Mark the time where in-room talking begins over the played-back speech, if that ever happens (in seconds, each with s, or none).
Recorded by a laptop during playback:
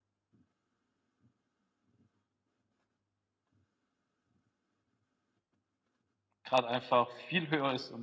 6.4 s